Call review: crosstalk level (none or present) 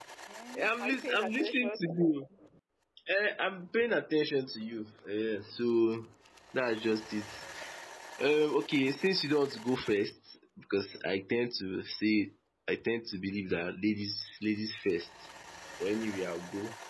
present